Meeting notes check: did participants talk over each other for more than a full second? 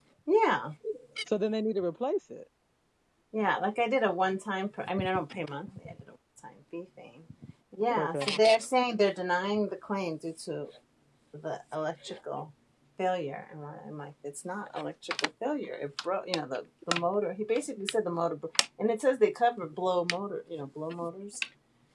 No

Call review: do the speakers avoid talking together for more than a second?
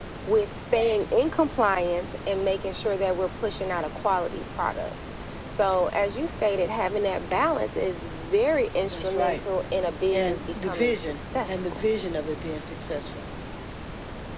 No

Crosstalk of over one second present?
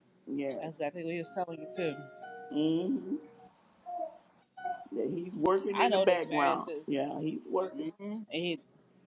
Yes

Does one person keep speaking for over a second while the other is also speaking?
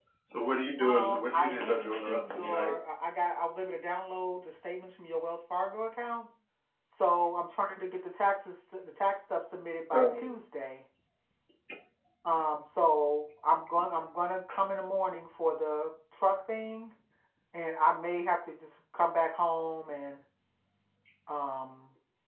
Yes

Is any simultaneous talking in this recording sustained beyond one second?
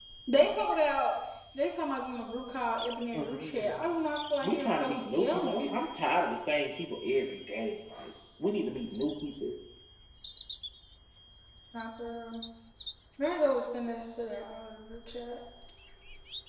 Yes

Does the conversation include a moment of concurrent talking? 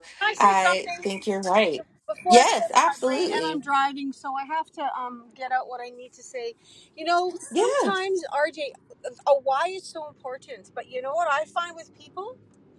Yes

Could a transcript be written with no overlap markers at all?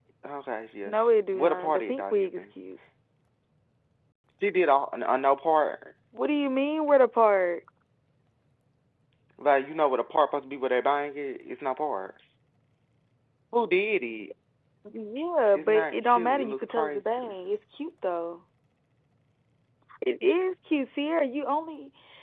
No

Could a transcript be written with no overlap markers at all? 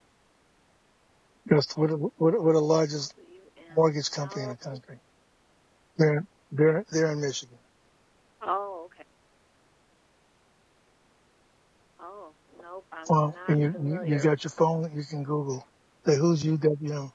No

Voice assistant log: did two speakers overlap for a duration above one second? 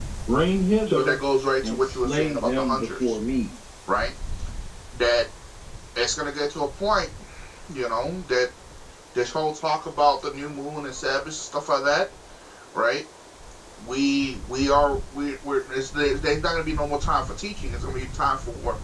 Yes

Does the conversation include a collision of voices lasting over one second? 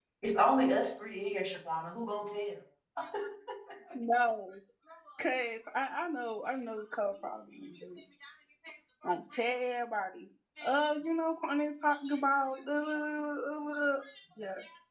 No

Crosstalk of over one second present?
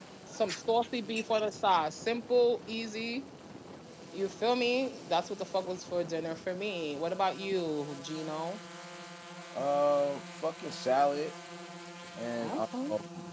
No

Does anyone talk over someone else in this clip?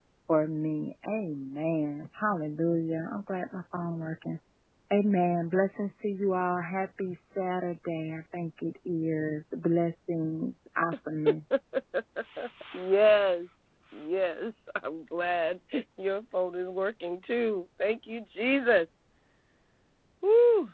No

